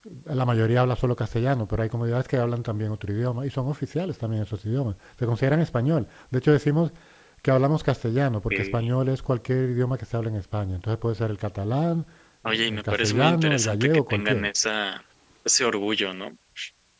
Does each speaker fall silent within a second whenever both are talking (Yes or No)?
No